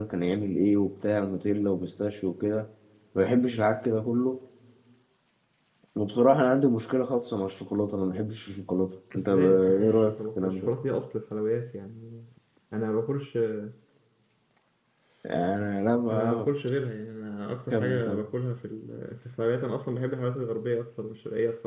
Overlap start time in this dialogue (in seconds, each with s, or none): 9.2 s